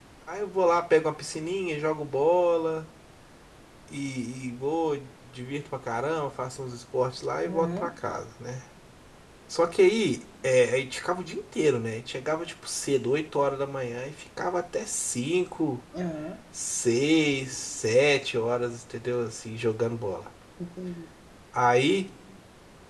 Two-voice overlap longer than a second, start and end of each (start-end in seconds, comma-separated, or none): none